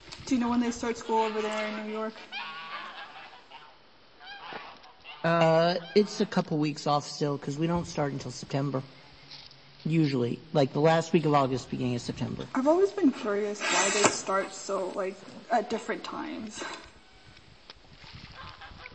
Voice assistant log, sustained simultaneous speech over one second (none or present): none